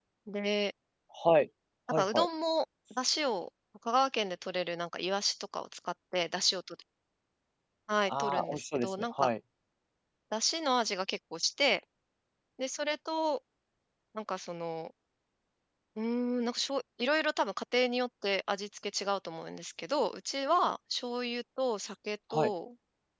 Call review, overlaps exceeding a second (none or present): present